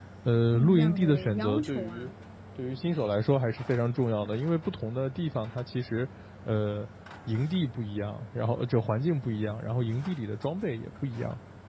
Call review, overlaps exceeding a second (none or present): present